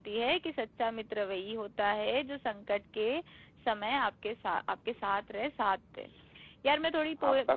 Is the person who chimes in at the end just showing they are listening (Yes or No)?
Yes